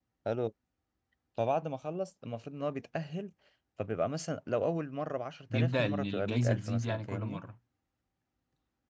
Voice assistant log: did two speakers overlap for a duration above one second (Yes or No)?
Yes